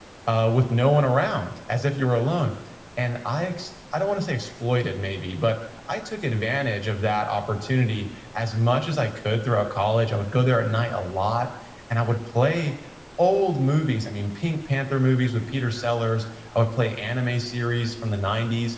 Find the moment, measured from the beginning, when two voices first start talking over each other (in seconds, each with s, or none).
none